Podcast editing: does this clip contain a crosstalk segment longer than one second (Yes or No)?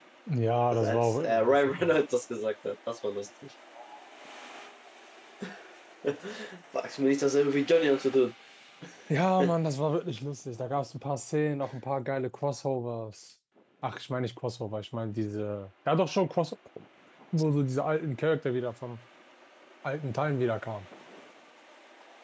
Yes